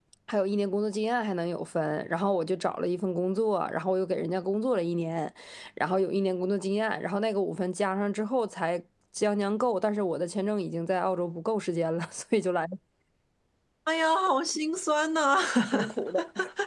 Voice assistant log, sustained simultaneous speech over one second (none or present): none